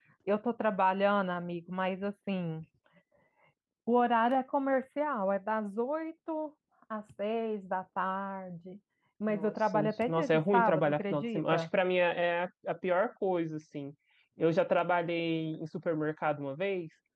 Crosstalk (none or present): present